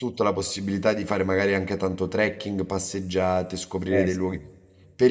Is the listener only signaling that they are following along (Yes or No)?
Yes